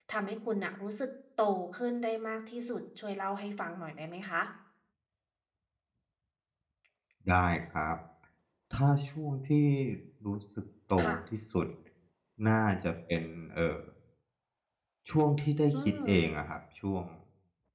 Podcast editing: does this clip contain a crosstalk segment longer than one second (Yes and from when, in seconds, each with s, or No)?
No